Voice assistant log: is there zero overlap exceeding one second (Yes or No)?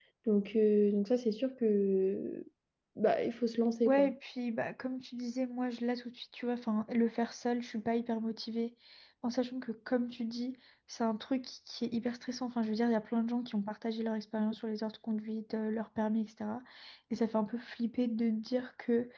Yes